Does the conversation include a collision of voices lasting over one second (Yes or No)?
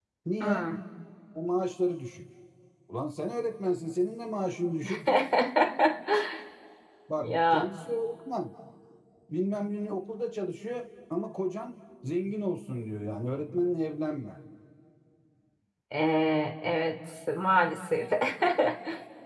No